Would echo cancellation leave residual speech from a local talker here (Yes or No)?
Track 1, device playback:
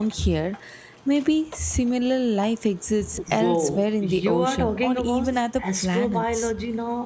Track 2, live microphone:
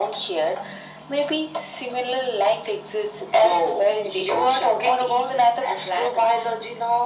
No